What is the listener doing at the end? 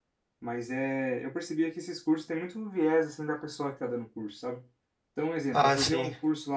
listening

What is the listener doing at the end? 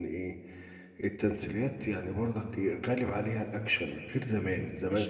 taking over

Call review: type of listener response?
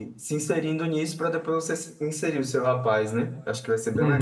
taking over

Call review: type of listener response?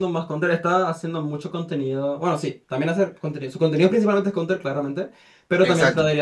listening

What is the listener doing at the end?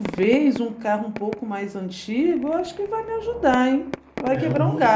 taking over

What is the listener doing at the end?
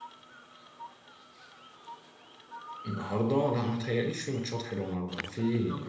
taking over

